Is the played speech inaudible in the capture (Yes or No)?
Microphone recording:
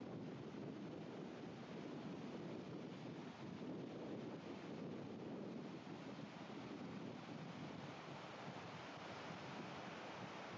Yes